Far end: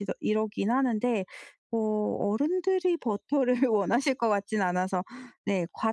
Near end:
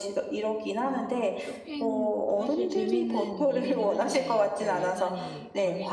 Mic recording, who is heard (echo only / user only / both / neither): both